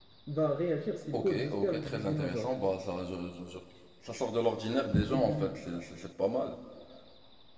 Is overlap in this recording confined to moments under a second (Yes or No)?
No